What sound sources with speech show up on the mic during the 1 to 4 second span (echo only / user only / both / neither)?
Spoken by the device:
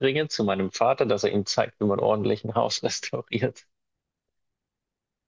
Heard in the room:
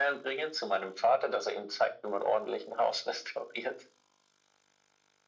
echo only